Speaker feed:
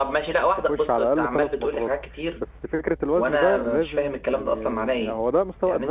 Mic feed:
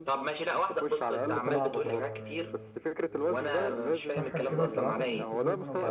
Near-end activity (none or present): present